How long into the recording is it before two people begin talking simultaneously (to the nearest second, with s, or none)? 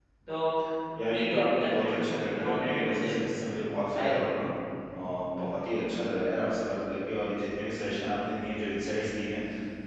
1 s